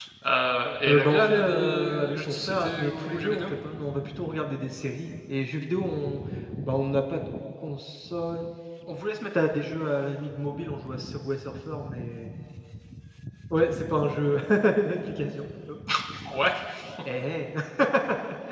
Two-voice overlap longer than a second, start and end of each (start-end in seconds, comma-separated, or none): 0.9-3.4